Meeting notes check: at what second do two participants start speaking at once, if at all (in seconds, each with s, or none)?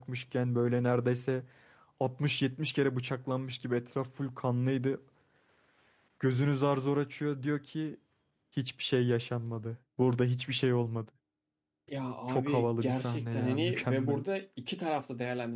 12.3 s